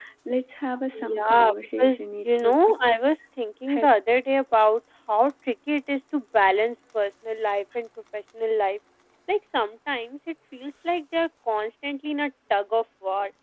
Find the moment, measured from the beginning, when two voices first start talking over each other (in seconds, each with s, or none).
1.0 s